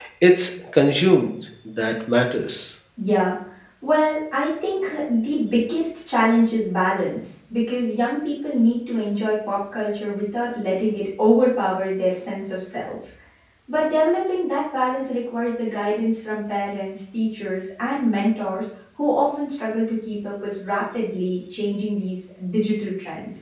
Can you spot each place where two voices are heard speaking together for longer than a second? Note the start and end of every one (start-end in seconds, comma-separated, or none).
none